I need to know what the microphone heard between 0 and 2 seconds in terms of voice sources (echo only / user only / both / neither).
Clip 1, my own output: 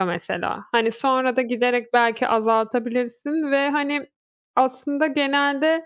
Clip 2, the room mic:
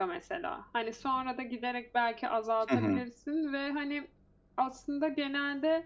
echo only